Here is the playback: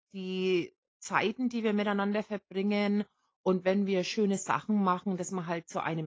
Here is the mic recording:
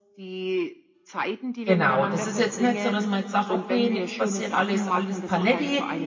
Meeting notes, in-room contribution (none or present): present